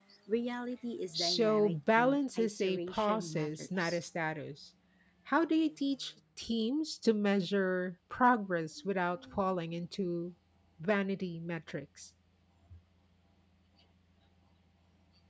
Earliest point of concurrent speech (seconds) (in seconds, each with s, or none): 1.1 s